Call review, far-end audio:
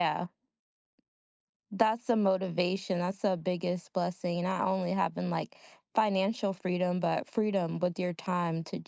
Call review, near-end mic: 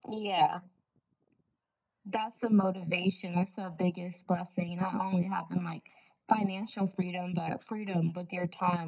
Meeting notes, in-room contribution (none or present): none